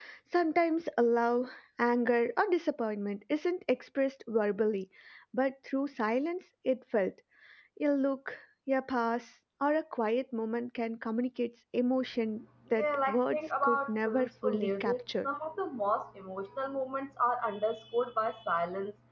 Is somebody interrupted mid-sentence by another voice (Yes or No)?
Yes